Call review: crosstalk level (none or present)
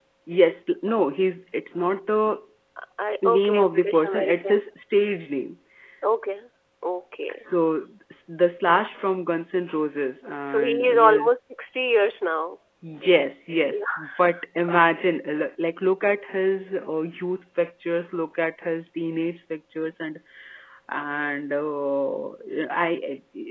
present